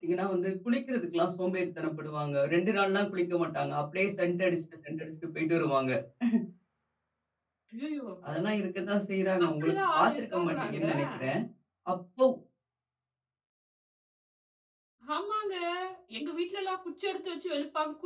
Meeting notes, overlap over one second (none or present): present